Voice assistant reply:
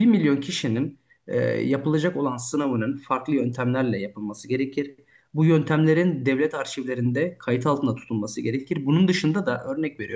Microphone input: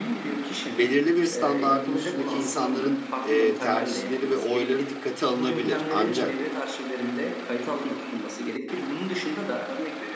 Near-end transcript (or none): belirli bir standardın üstündeki insanların e, tercihleri ve oyları dikkate alınabilir. Ancak